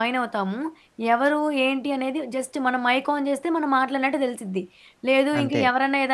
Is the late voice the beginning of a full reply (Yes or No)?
No